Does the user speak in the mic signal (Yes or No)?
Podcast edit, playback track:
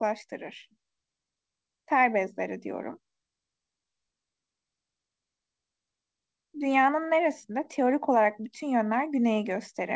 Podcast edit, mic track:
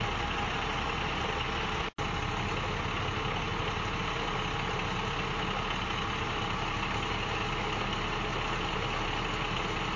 No